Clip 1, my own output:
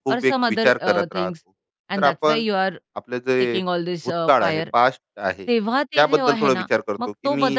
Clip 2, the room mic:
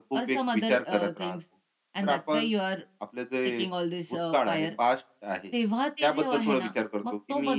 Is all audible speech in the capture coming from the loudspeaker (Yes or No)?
Yes